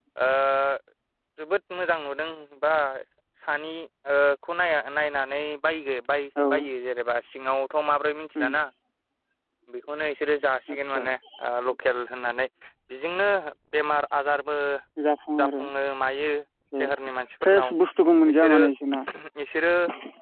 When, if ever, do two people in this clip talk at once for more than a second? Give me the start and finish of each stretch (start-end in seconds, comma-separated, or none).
none